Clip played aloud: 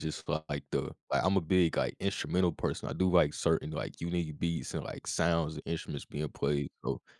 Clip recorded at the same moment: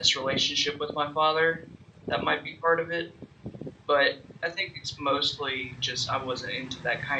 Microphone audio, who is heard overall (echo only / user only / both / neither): user only